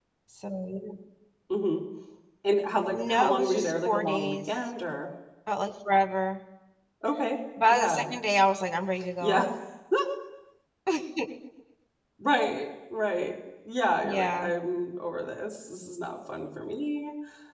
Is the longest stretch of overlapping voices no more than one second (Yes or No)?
No